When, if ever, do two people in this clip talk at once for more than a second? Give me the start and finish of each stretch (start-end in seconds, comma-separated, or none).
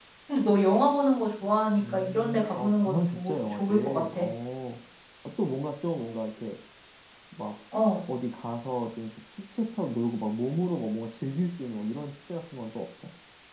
1.8-4.2